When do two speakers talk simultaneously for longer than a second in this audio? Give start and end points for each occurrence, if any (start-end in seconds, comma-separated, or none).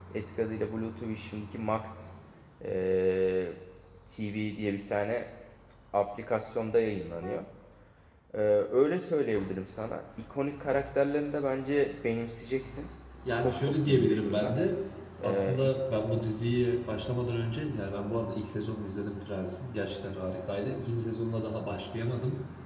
13.4-14.6